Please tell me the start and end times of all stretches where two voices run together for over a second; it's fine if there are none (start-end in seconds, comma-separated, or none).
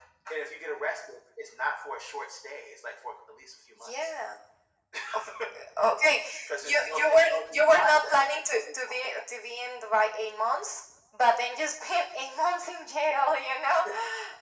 6.6-9.2